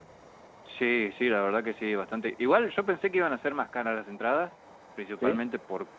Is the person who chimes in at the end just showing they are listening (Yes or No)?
Yes